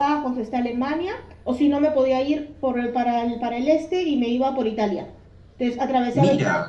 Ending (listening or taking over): listening